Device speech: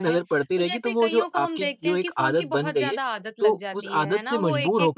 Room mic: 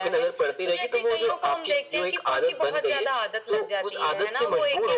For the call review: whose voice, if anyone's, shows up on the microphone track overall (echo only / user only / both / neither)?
echo only